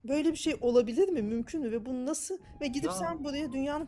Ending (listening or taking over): listening